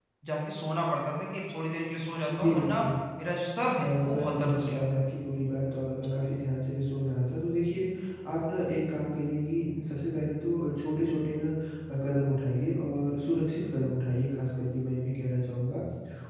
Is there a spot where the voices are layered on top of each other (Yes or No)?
Yes